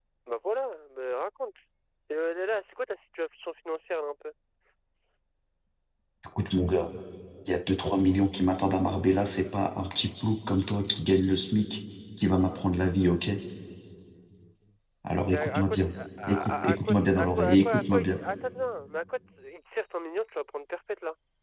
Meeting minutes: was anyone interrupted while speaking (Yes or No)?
Yes